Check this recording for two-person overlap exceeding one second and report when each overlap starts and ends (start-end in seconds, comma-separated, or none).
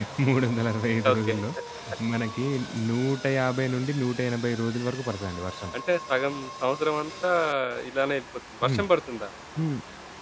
none